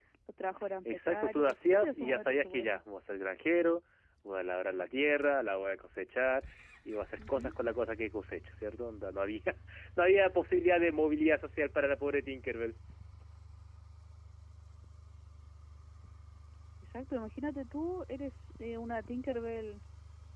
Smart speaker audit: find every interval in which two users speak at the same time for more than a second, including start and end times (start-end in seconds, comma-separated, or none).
0.8-2.8